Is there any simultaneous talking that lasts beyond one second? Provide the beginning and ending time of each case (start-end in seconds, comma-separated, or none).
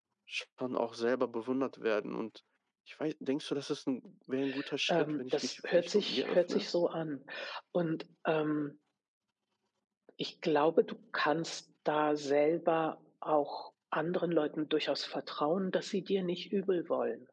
4.9-6.7